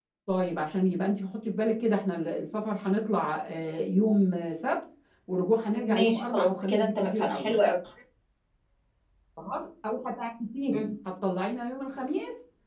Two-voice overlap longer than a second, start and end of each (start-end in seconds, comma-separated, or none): 5.7-7.5